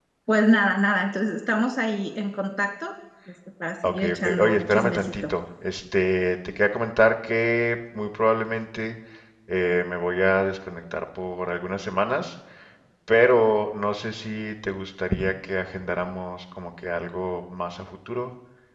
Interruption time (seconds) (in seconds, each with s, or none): 3.8 s